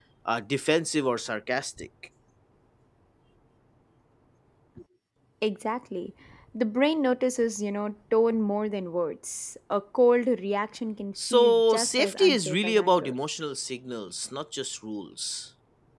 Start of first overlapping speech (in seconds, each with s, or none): 11.2 s